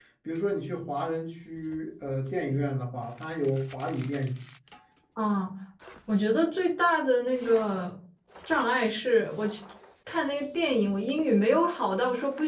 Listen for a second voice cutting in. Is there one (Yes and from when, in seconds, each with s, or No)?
No